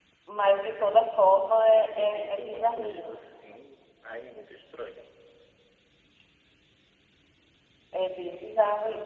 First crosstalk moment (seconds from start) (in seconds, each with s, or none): 1.6 s